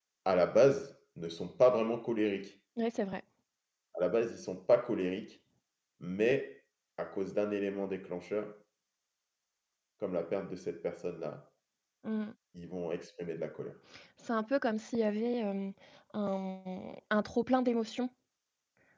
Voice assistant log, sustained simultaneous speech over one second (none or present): none